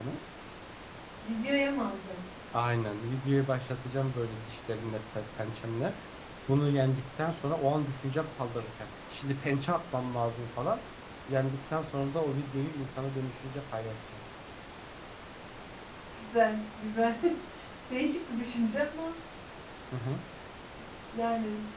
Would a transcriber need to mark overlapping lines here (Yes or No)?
No